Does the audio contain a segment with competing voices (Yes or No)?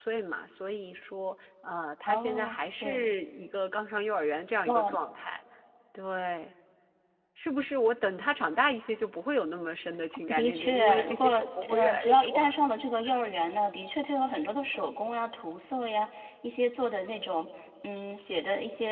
Yes